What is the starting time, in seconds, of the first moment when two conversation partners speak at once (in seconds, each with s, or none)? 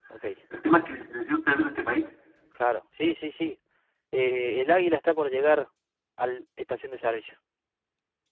none